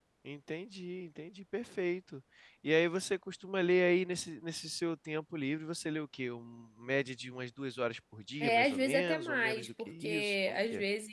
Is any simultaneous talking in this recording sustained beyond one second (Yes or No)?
Yes